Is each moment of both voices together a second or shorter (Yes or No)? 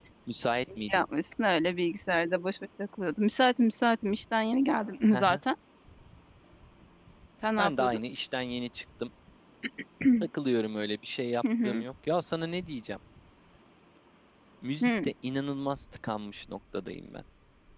Yes